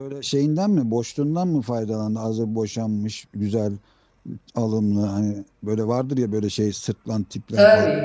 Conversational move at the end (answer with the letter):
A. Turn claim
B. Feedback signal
A